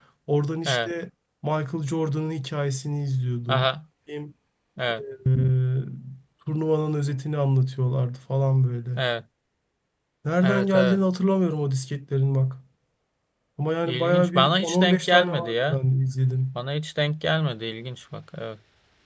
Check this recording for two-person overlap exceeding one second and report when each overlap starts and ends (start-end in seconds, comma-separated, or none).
13.8-15.8